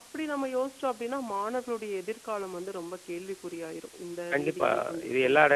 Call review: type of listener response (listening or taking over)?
taking over